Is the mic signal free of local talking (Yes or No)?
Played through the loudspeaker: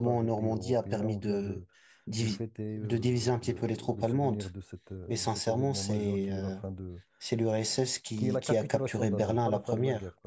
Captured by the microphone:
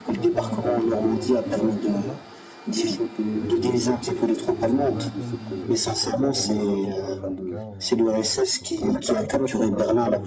No